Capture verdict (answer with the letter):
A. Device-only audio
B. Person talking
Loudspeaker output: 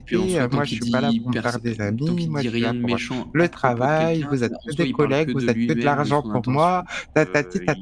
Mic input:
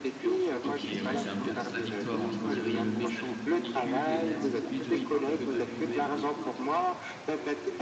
B